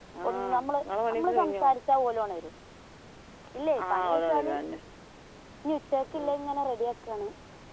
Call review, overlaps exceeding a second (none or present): present